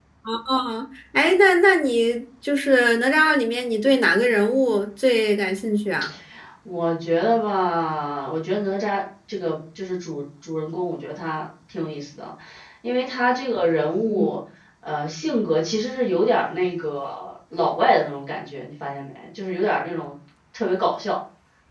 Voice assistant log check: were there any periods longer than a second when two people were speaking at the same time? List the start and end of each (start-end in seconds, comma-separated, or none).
none